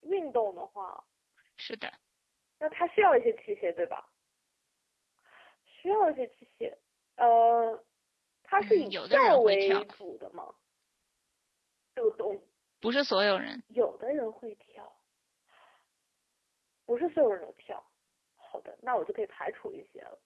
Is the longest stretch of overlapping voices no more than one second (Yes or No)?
No